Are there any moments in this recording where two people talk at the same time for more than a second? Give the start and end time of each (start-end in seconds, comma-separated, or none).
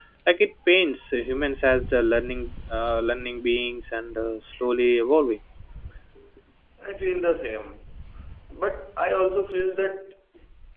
none